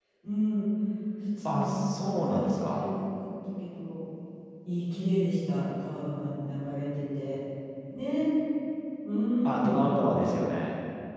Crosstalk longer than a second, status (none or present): present